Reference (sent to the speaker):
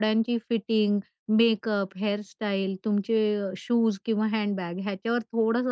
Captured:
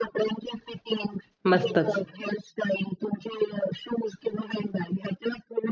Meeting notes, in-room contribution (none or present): present